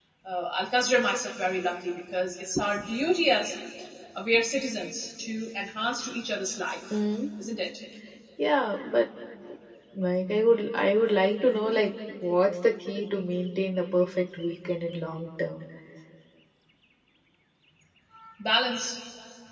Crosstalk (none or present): none